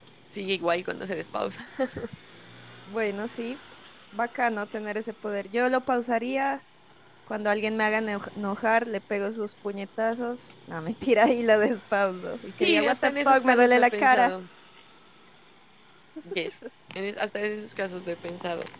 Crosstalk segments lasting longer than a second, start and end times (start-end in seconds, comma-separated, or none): 12.6-14.3